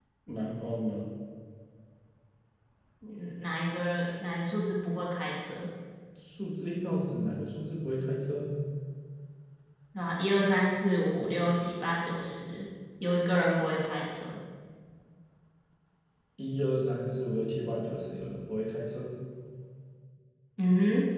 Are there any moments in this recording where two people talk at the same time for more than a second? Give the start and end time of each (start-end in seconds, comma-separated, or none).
none